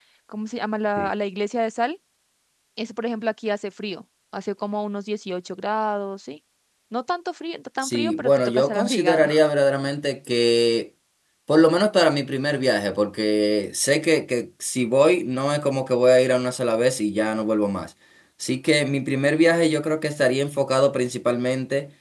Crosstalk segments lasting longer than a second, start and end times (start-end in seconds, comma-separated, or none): 7.8-9.3